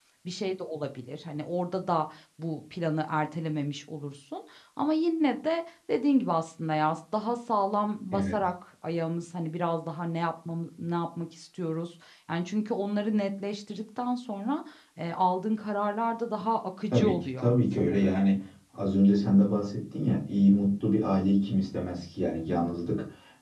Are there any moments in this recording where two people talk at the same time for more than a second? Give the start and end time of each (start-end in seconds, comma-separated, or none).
16.9-18.1